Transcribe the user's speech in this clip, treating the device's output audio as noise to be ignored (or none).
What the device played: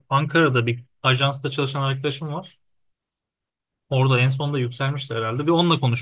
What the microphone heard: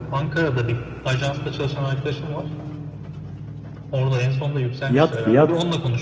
Fiyat fiyat.